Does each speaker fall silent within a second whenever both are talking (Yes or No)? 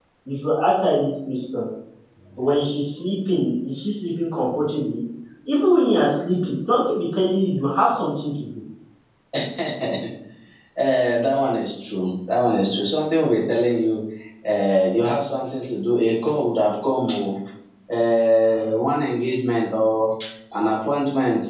Yes